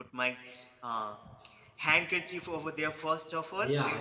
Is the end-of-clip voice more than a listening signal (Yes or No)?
Yes